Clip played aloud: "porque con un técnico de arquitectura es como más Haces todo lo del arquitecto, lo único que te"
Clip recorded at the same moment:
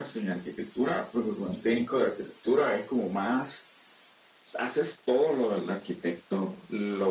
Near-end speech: none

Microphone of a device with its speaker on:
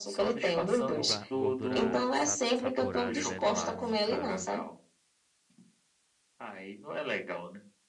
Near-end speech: present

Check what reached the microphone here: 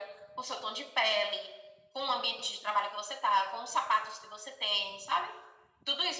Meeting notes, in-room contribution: none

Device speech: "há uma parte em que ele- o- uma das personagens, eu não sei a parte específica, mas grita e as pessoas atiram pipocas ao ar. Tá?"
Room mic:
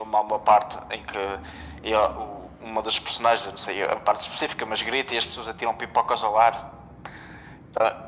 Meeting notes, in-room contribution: none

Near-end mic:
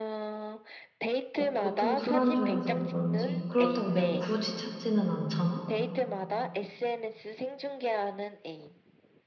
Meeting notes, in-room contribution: present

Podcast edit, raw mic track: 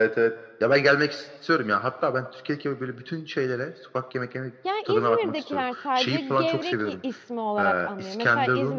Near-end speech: present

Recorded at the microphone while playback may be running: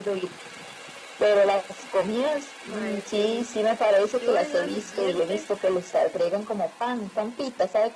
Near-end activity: present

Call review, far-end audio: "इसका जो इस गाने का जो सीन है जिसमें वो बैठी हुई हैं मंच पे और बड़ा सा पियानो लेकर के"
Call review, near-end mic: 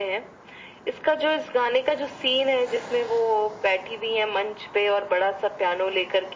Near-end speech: none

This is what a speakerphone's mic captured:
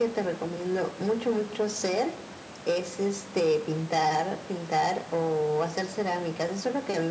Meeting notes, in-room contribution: none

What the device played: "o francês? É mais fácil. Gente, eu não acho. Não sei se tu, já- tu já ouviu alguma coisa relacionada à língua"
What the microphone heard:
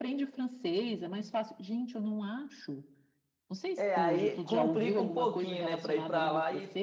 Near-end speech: present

